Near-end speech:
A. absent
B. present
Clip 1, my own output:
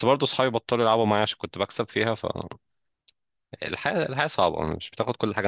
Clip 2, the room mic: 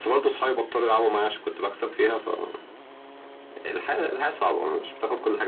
A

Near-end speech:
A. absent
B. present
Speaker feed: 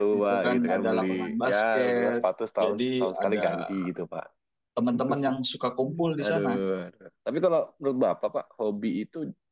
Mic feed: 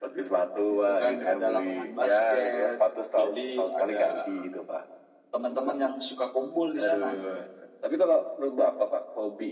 A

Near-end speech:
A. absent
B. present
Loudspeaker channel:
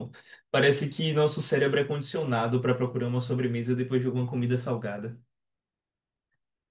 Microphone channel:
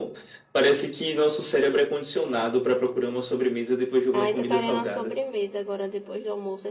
B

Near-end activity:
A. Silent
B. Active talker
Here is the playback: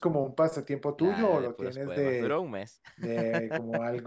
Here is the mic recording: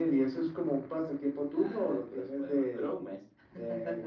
A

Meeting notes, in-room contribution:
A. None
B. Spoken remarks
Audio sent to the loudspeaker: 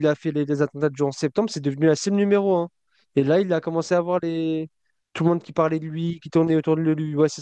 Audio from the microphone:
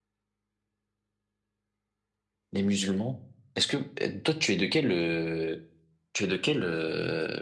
B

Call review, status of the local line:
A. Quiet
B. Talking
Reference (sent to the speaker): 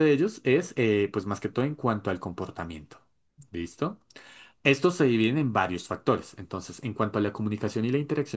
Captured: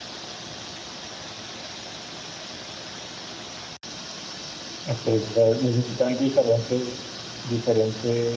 B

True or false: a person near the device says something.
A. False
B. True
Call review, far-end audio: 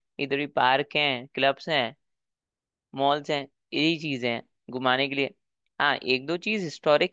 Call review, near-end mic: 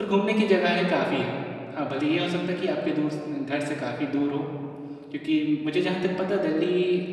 B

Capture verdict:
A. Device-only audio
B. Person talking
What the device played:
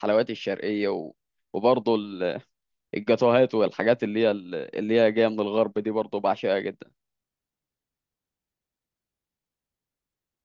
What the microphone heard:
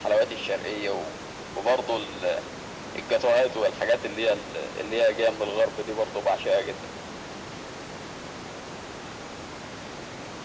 A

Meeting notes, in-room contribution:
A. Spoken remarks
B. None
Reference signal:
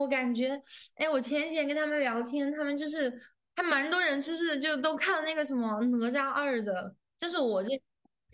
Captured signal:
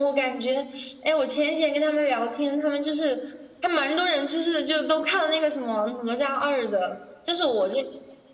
B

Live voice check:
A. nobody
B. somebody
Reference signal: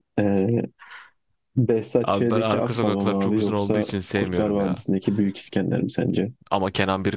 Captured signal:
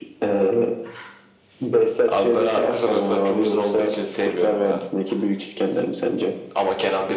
A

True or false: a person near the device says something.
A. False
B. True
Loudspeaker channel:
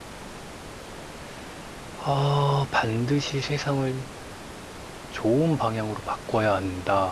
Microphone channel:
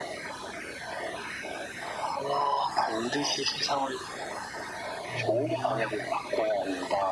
B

